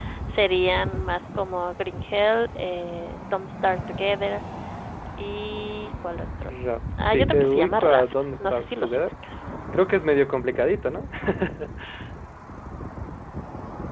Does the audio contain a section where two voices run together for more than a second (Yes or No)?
Yes